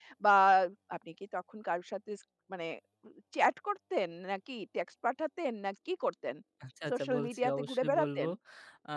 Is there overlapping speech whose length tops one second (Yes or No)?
Yes